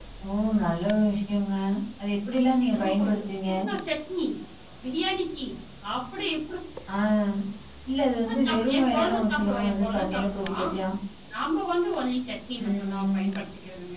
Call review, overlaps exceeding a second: present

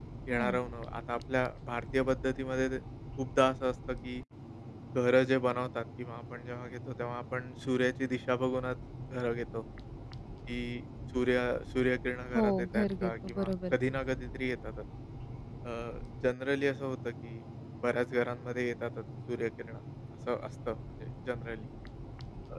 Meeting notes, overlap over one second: present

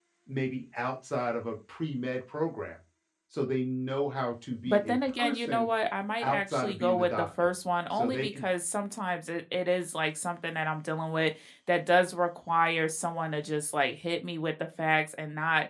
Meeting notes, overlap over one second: present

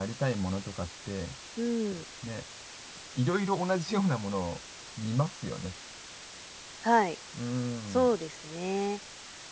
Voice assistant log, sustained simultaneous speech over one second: none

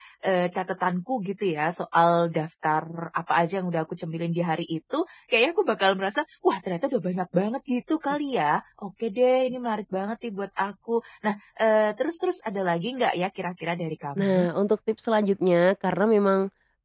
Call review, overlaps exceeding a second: none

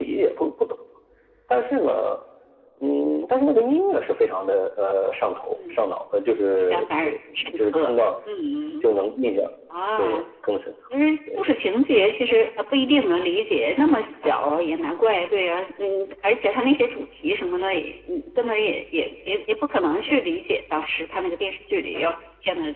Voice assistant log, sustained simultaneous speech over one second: present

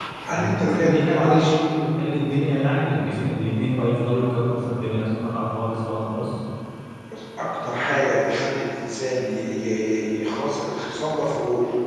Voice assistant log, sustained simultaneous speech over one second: present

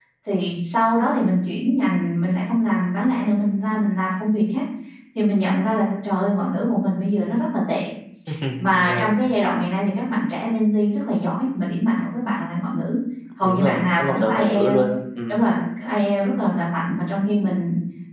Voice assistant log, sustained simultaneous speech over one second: present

